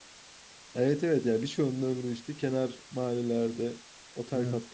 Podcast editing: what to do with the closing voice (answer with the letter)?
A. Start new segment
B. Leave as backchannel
B